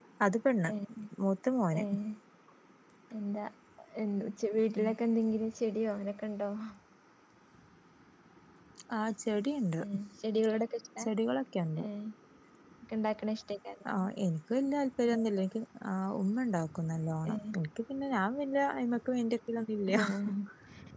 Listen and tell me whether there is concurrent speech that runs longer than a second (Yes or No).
No